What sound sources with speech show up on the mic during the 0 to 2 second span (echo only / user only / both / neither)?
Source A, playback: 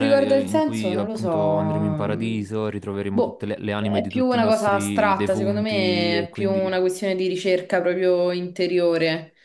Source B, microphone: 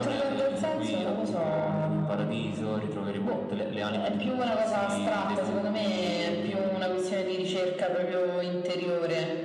echo only